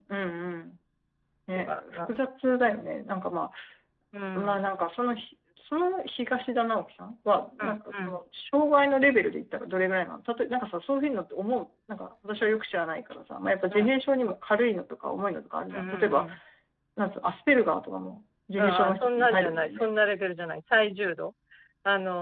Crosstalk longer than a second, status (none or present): present